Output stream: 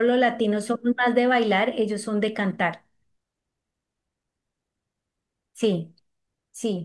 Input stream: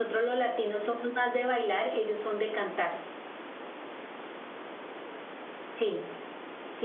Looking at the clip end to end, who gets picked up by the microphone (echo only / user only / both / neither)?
echo only